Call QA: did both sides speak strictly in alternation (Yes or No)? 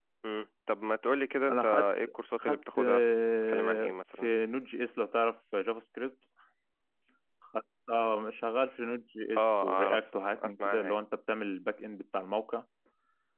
No